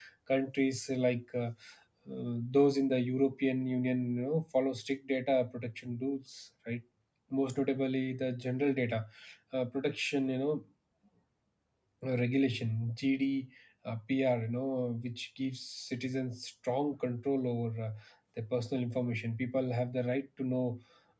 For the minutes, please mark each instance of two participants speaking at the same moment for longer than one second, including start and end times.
none

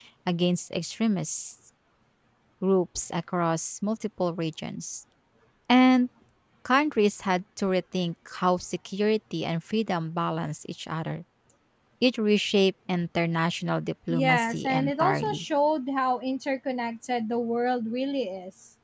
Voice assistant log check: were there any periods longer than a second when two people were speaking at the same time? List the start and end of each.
14.1-15.4

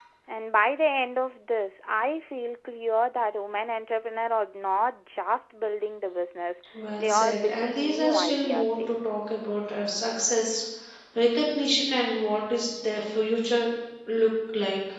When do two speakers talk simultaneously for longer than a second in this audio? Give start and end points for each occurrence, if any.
7.0-9.0

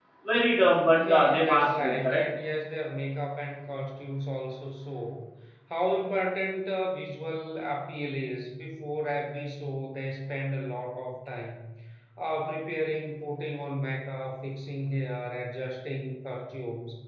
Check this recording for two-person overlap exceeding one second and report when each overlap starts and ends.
0.9-2.2

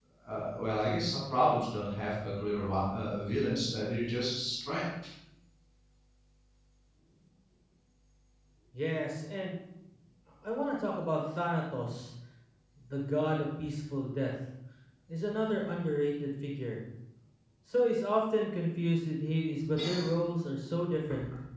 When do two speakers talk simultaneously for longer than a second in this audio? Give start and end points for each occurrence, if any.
none

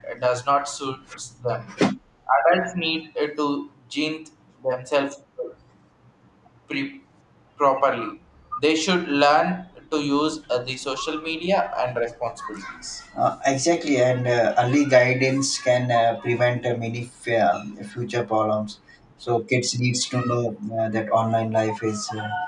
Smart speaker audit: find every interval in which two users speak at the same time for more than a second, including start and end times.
none

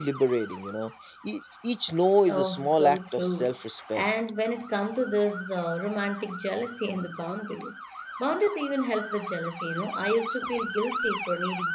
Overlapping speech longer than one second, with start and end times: 2.3-3.5

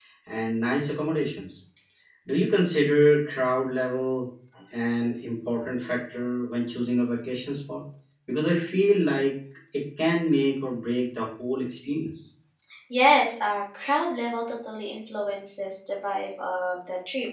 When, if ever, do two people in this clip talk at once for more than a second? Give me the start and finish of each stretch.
none

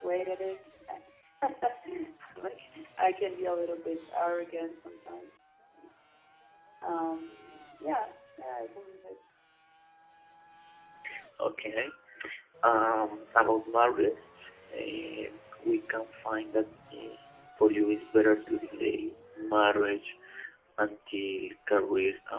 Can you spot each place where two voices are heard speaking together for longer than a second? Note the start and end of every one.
none

